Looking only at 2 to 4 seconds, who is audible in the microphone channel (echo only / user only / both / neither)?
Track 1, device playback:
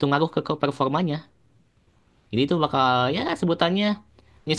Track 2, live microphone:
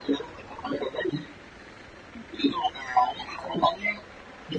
echo only